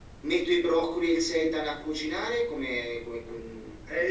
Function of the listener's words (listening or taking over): taking over